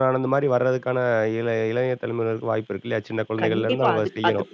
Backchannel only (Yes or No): No